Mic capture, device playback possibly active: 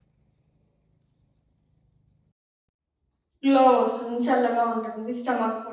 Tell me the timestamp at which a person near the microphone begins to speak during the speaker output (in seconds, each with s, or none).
3.5 s